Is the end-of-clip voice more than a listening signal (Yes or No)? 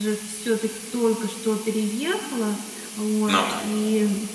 No